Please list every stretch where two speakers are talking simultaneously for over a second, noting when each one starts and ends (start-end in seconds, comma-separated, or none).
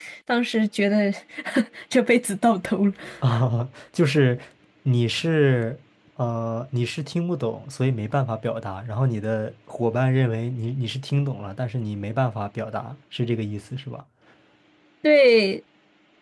none